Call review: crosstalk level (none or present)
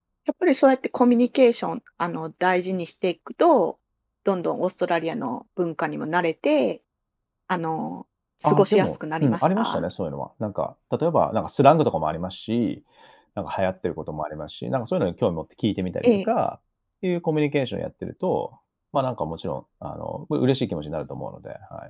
present